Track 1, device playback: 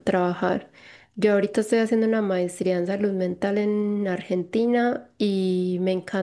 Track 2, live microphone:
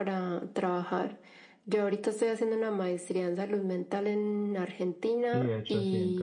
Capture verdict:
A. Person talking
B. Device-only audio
A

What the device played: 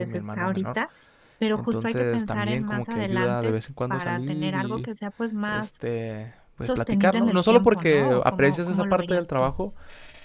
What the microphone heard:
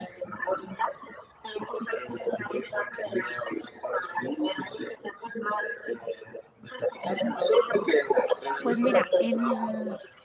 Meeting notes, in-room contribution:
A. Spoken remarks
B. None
A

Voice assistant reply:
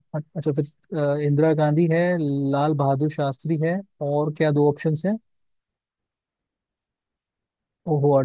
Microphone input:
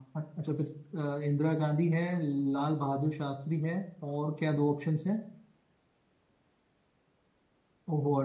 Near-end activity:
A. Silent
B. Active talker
A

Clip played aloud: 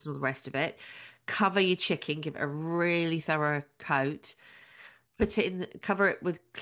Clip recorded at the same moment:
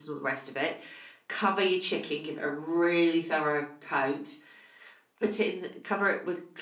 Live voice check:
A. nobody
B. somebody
A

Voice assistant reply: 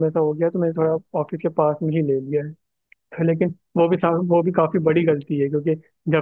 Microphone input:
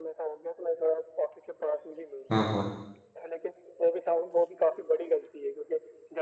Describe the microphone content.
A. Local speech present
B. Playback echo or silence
A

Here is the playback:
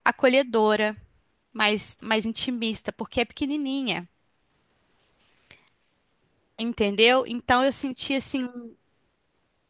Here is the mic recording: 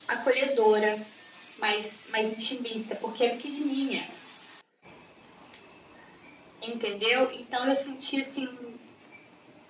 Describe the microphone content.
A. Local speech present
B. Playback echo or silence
B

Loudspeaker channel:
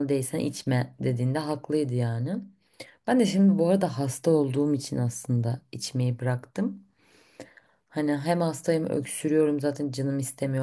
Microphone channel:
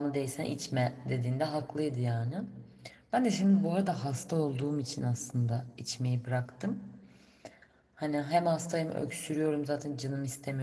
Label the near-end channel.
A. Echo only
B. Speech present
A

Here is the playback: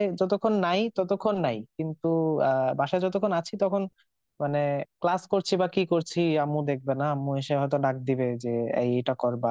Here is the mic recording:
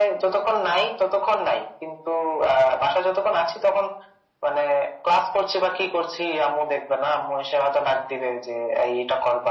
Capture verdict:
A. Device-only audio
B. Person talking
A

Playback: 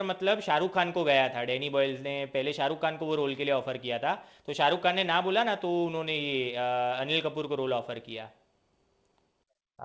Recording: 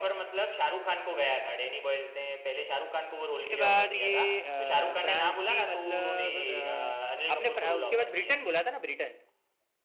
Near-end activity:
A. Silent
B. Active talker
B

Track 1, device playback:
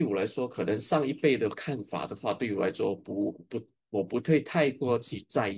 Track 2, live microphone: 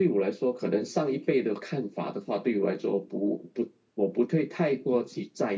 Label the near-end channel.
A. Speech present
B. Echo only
B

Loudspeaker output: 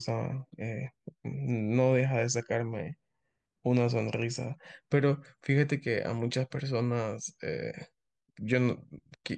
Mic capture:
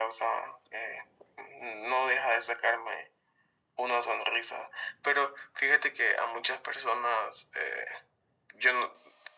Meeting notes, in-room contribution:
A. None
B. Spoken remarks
A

